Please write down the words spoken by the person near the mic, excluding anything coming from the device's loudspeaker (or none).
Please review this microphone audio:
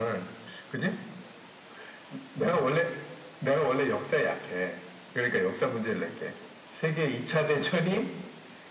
none